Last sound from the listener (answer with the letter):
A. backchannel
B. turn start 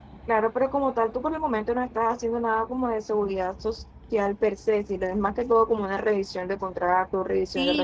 B